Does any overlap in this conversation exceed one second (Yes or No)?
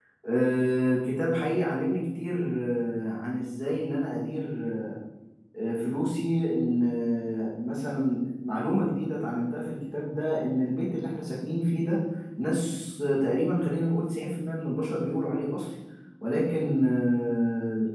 No